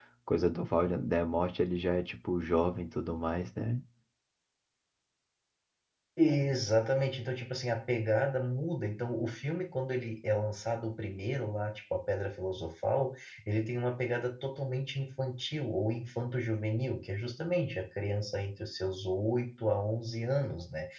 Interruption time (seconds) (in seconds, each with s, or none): none